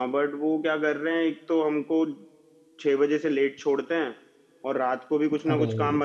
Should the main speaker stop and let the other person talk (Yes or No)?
No